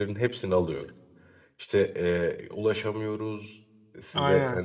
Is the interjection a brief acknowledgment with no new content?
Yes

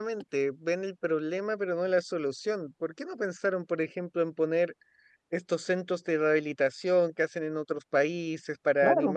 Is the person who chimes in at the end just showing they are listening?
Yes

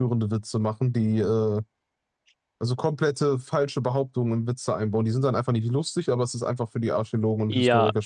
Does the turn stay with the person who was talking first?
No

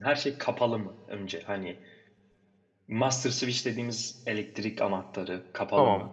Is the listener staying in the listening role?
Yes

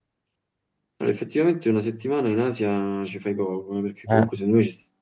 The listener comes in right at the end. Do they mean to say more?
No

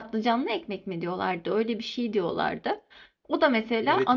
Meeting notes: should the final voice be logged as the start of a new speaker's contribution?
Yes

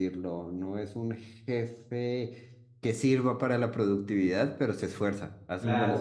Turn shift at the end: Yes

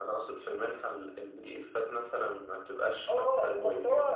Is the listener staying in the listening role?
No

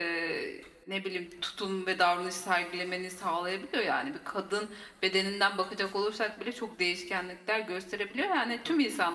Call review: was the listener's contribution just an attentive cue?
Yes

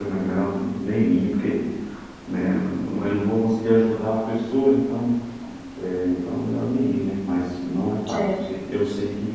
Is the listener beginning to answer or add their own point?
No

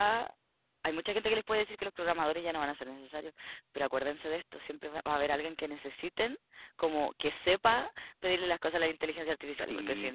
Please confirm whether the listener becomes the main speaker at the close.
No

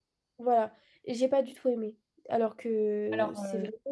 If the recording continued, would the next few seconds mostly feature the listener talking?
No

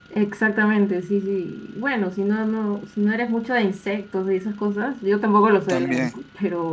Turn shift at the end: No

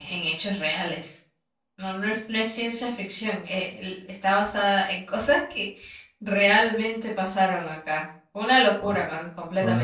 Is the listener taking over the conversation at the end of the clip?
Yes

